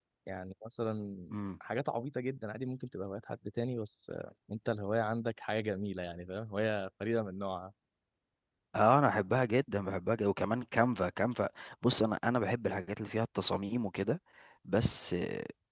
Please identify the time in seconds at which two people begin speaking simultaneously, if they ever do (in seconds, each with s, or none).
none